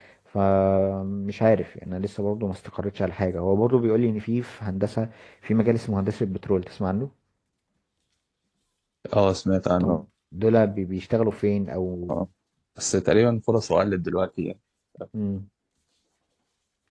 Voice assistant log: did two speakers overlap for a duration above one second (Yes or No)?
No